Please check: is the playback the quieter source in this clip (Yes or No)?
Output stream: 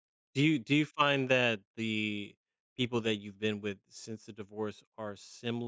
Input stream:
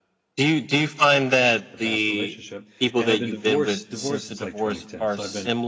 No